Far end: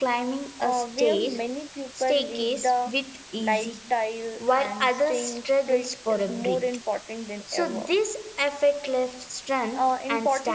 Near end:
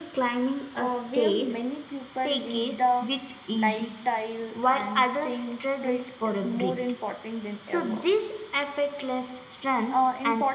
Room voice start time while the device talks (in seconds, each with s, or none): none